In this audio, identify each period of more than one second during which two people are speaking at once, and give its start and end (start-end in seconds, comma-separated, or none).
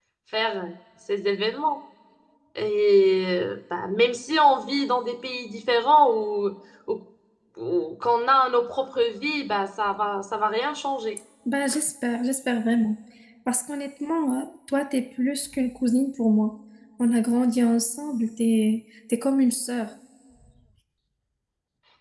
none